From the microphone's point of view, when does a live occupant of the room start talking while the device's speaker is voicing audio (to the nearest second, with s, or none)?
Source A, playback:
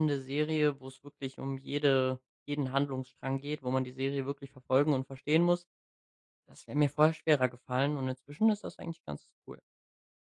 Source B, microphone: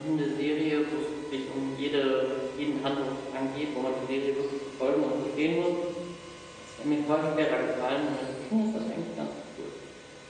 none